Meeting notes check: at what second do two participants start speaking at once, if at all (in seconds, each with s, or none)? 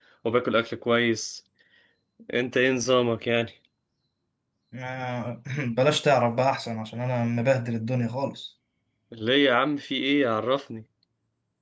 none